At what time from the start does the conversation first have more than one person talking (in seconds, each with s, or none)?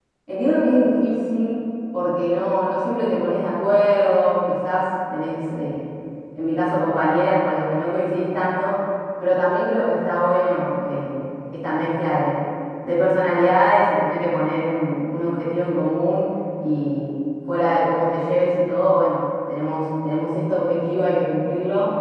none